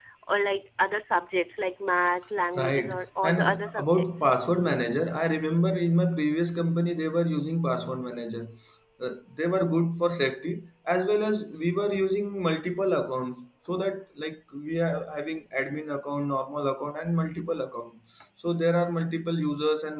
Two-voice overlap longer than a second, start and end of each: 2.6-4.2

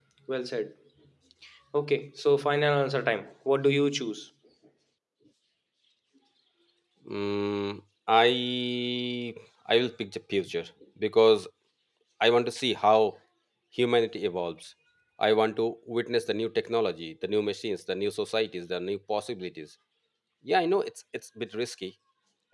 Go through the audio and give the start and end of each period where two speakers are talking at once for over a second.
none

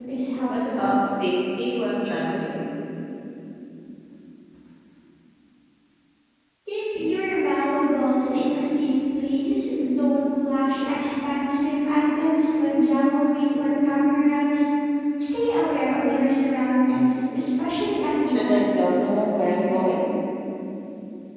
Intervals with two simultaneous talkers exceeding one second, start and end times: none

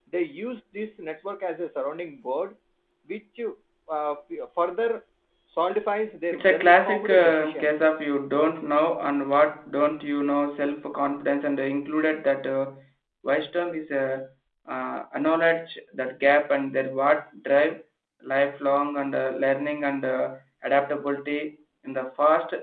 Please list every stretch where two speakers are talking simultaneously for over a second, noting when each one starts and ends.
6.3-7.7

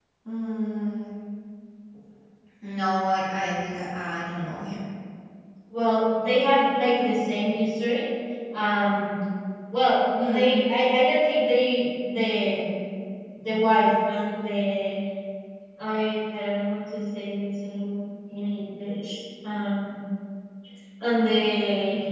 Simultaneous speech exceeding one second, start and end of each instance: none

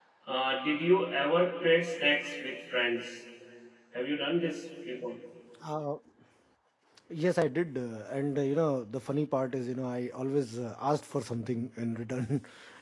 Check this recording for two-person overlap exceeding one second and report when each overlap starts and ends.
none

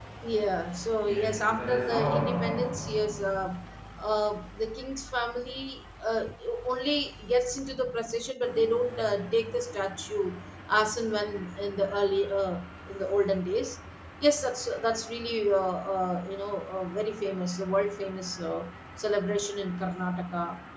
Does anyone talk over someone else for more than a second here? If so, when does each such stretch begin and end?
1.0-2.8

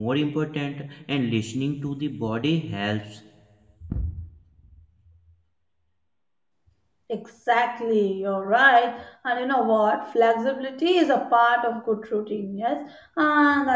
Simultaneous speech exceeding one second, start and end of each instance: none

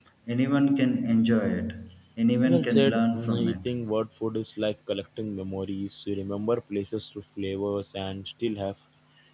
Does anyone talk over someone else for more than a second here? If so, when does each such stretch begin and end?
2.5-3.7

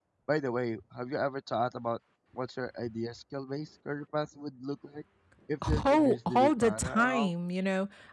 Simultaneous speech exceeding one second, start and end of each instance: 5.7-7.3

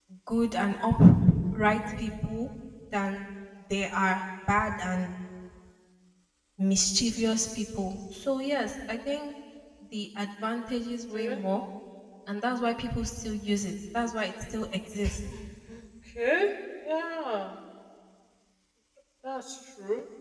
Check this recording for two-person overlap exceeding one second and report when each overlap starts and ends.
none

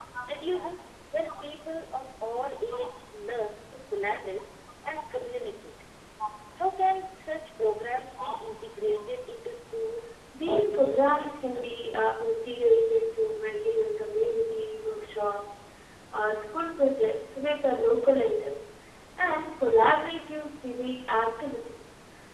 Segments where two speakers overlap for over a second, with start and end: 10.5-11.8

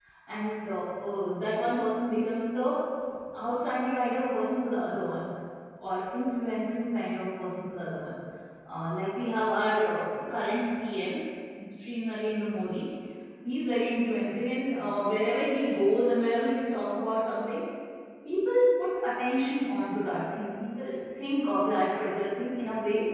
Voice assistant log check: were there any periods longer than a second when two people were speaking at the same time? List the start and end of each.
none

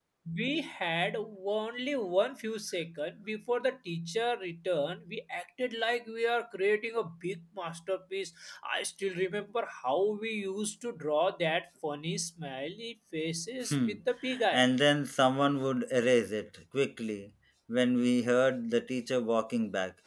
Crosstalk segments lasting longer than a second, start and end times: none

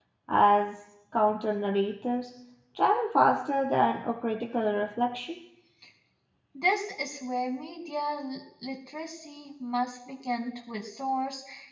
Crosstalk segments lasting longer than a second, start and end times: none

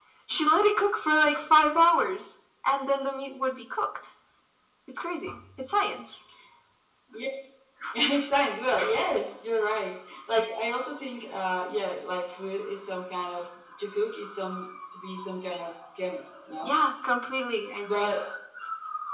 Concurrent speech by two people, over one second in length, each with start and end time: none

